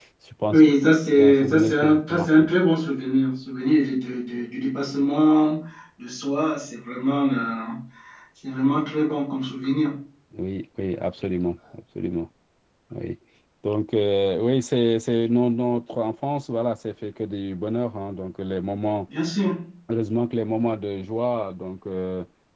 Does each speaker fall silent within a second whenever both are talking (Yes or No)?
No